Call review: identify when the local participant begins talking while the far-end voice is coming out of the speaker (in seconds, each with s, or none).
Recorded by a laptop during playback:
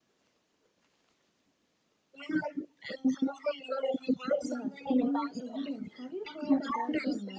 4.4 s